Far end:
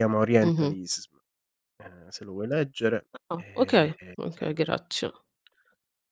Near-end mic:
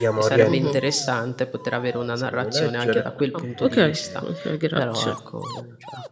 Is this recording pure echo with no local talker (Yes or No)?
No